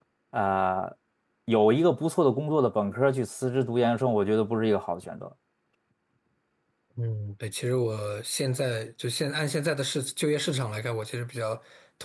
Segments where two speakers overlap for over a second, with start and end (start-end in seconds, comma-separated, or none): none